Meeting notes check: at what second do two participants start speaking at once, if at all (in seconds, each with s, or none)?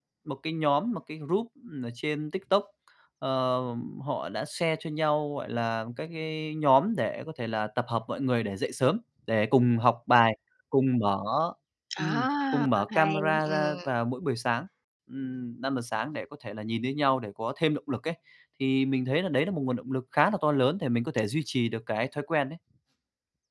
12.0 s